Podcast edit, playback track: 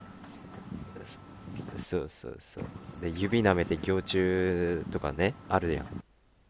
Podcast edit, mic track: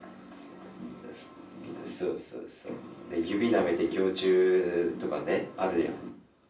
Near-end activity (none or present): none